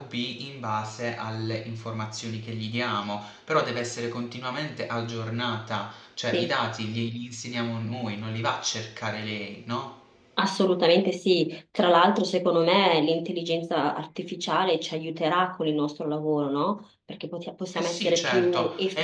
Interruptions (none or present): present